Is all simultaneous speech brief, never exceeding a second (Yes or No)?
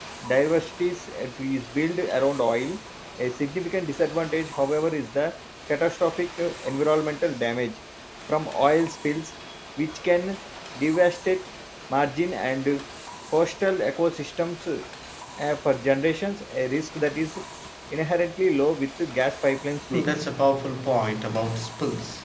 Yes